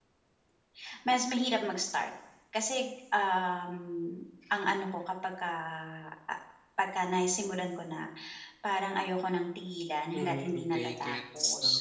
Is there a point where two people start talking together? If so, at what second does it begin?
10 s

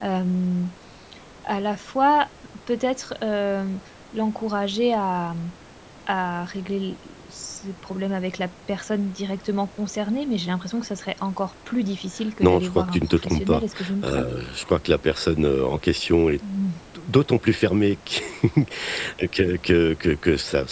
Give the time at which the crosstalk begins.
12 s

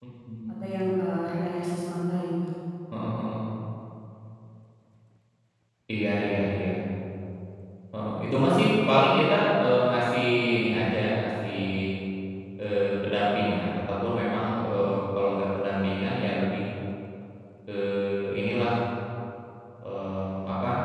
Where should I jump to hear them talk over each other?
none

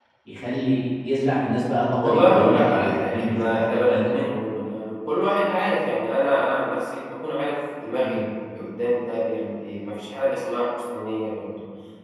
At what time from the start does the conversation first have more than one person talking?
2 s

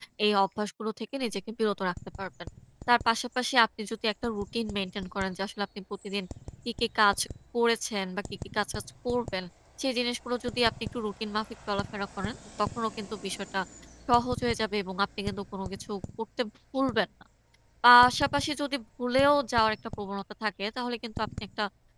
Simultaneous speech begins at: none

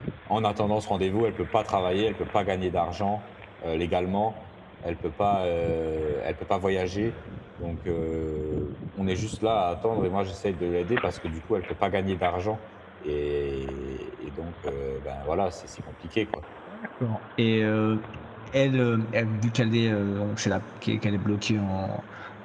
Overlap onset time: none

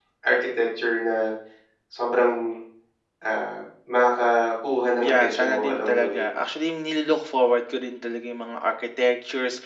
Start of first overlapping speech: 5 s

